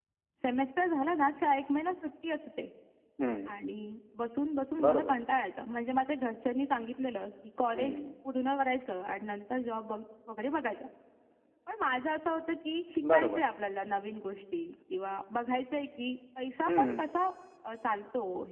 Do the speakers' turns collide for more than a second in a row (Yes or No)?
No